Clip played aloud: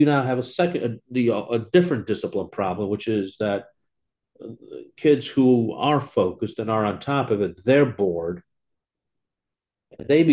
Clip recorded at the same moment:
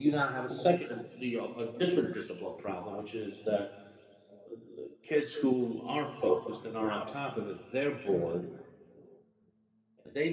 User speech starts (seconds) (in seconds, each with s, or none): none